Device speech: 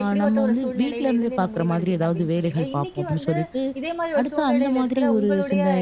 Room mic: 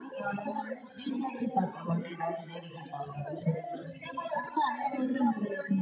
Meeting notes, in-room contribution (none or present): none